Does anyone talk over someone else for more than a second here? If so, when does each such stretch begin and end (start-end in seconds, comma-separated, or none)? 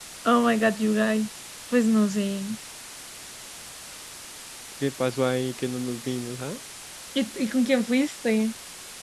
none